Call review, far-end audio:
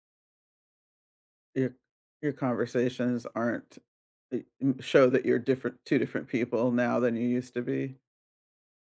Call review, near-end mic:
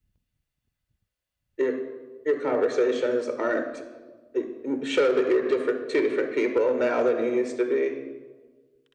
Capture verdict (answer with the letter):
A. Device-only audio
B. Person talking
A